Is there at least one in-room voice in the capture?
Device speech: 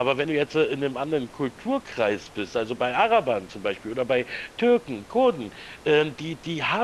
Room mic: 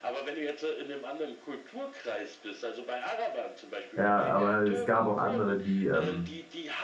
Yes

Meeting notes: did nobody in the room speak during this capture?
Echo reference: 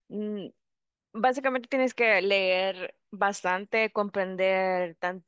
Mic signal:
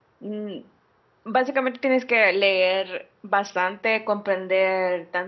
Yes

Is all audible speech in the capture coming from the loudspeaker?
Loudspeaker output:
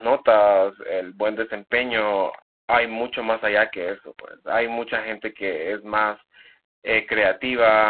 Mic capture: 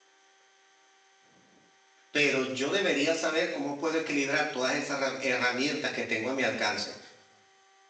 No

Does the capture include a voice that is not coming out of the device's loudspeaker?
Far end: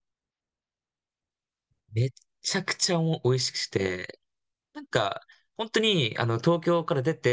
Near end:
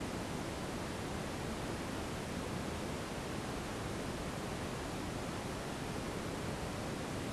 No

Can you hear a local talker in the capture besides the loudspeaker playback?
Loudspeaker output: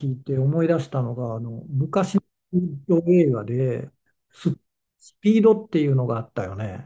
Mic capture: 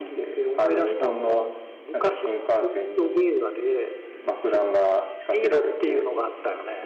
Yes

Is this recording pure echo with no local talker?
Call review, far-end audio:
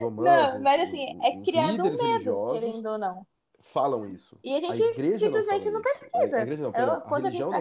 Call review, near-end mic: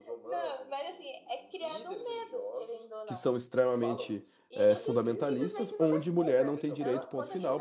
No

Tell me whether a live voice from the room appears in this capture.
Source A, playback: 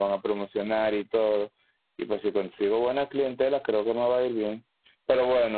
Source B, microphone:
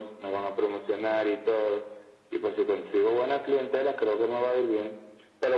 No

